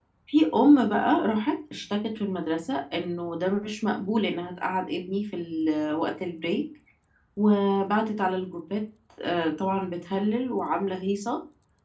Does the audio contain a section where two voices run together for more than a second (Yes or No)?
No